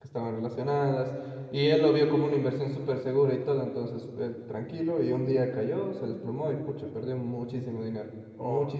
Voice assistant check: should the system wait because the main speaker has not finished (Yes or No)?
No